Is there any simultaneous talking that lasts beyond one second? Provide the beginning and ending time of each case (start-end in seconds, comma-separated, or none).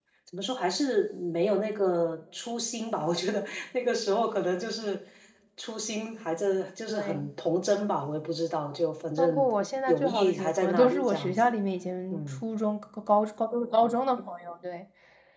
9.9-11.6